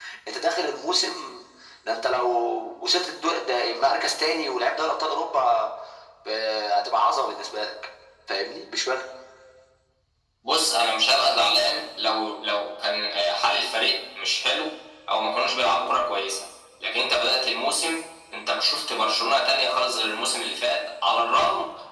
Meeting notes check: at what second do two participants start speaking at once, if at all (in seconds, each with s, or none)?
none